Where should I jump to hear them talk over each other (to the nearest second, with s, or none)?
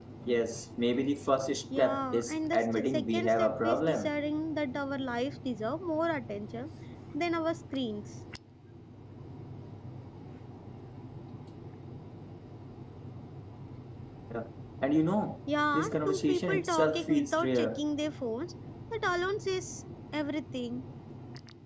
2 s